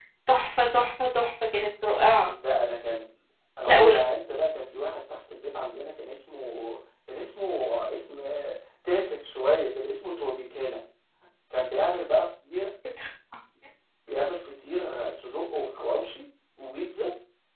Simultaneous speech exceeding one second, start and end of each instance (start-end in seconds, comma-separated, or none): none